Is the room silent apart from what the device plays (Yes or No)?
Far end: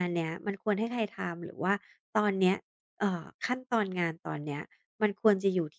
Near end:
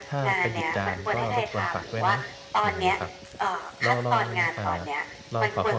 No